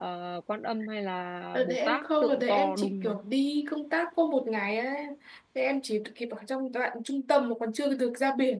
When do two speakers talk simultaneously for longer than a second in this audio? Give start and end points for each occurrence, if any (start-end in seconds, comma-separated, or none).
1.5-3.2